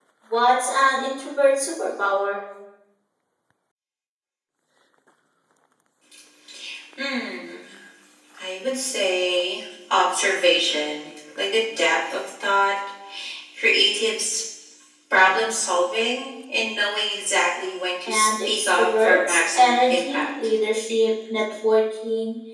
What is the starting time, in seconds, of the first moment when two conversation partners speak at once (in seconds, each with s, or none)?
18.0 s